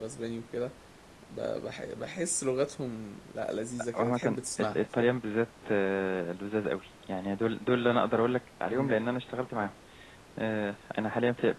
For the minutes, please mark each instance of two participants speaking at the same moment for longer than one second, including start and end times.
3.9-5.2

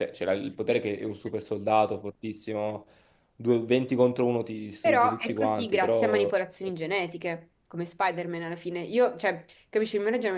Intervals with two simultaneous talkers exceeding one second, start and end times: 4.8-6.3

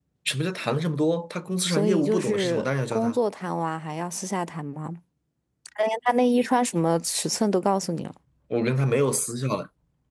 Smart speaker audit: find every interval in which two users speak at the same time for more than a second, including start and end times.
1.7-3.2

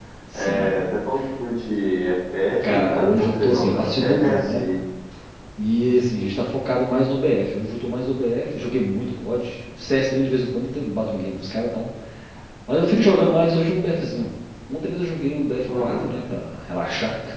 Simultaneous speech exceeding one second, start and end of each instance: 2.7-4.7

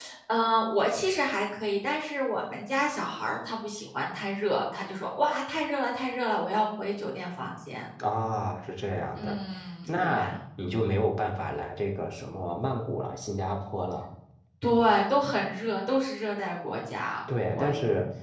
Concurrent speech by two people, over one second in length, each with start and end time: none

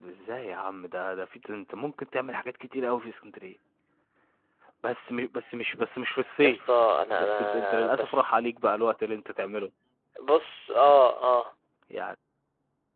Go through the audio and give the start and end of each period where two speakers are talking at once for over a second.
6.4-8.3

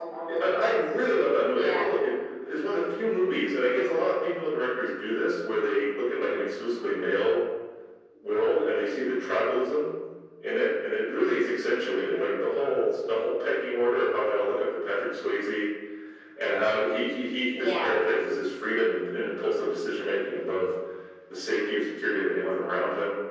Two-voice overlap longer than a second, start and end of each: none

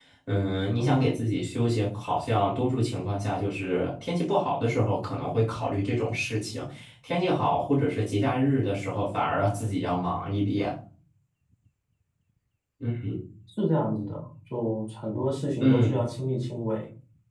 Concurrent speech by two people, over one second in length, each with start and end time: none

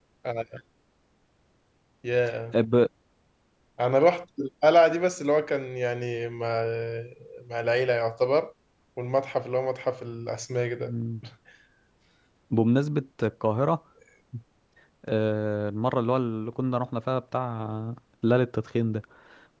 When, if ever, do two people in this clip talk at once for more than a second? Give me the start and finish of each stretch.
none

